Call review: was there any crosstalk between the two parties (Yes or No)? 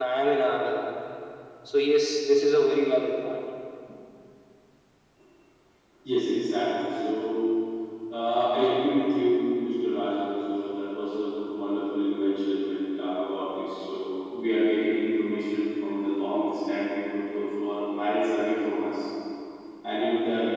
No